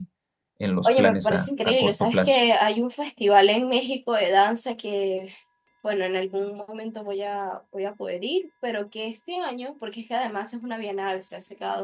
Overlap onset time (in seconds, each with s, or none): 0.8 s